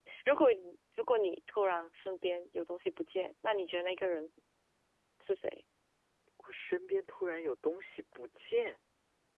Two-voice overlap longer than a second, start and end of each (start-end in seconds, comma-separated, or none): none